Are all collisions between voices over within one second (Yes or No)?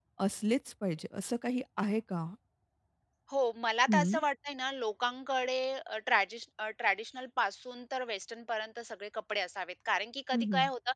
Yes